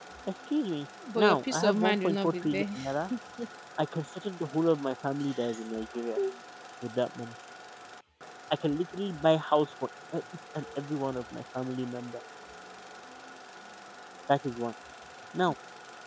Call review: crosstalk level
present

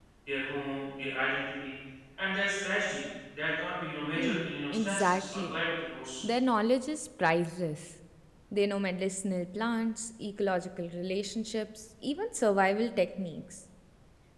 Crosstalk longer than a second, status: present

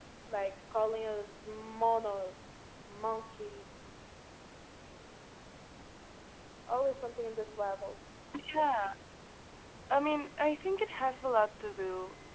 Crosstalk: none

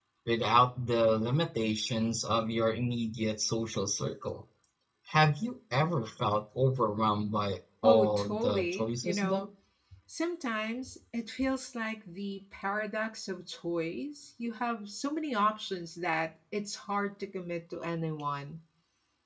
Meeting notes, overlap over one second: present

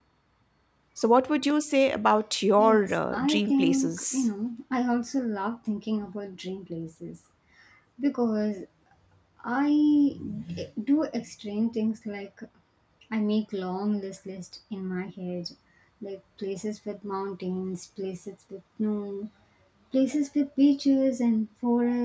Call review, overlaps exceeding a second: present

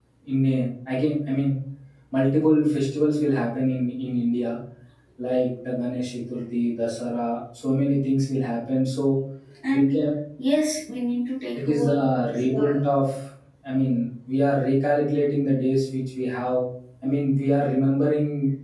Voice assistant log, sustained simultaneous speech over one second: present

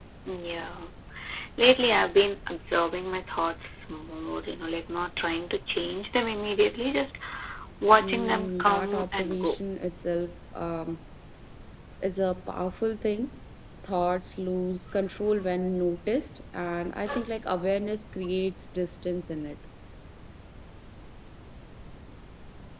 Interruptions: present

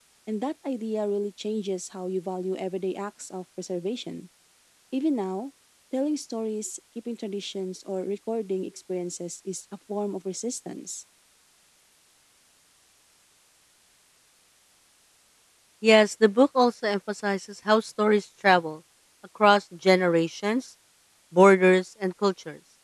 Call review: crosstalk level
none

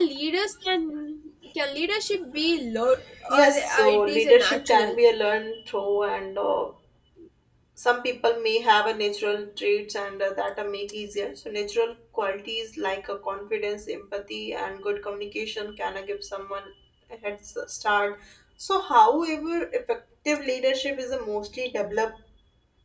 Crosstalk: present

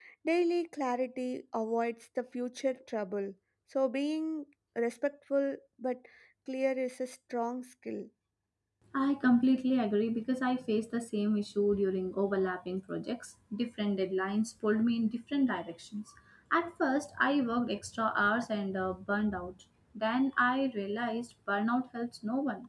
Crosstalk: none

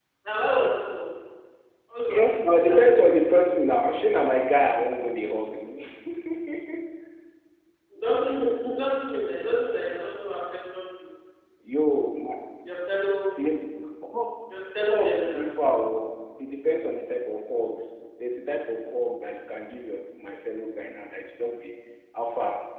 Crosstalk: present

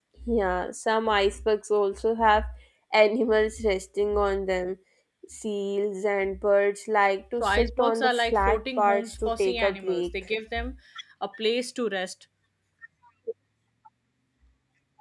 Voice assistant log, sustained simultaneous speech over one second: present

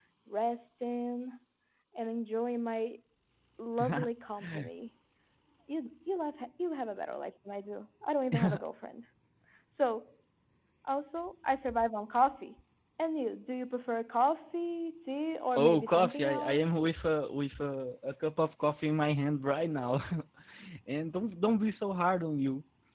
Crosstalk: present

